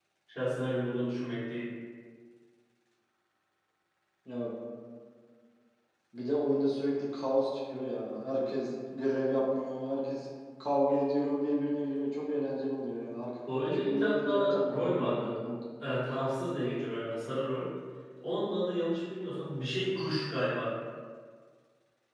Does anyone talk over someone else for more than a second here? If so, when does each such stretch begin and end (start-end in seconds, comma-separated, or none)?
13.6-15.3